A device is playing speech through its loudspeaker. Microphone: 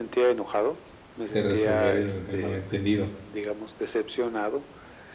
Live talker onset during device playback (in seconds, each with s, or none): 1.3 s